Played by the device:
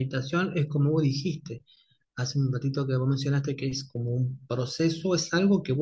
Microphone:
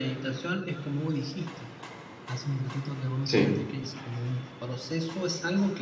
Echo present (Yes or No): Yes